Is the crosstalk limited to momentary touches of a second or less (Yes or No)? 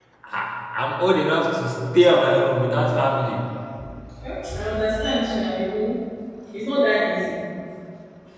Yes